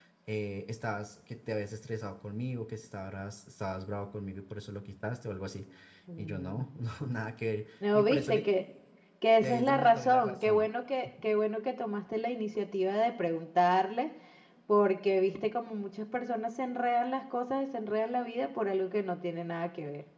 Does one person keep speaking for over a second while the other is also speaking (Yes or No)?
Yes